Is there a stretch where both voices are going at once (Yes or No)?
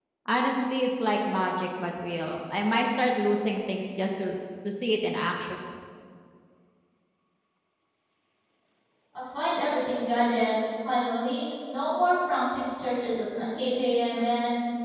No